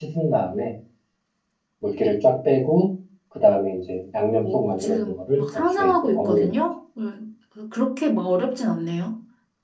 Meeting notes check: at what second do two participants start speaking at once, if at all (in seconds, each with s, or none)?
4.4 s